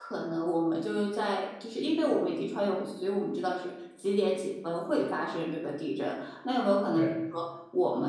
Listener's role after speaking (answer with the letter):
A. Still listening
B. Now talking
A